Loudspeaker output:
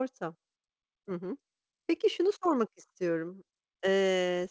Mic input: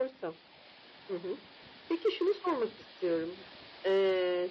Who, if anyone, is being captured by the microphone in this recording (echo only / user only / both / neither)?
echo only